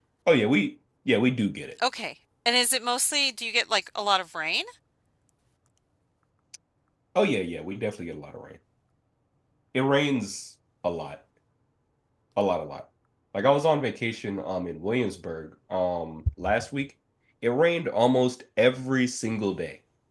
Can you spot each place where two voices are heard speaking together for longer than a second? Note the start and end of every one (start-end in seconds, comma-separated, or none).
none